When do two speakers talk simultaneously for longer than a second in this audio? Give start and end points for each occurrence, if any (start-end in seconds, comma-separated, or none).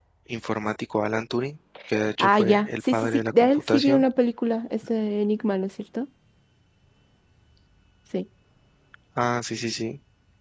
2.2-4.0